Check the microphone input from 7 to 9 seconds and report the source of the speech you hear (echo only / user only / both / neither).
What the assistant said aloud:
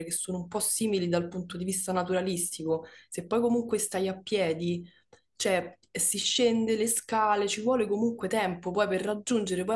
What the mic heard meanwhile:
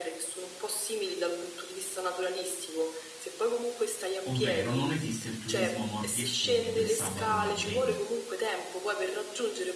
both